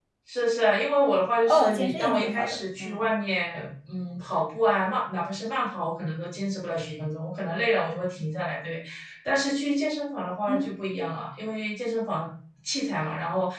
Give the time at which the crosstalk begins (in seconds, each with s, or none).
1.5 s